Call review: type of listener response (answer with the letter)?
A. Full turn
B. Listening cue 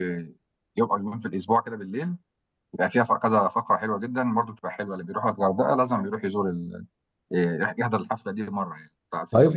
A